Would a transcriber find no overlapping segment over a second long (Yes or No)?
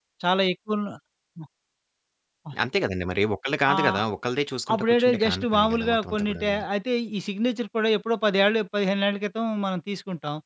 No